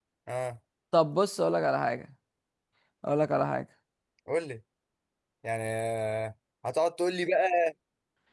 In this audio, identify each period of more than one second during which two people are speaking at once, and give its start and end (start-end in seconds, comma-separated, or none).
none